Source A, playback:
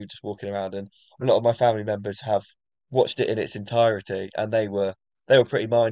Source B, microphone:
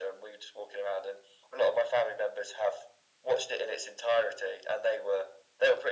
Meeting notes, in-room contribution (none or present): none